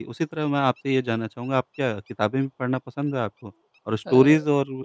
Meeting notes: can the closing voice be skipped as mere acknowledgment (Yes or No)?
Yes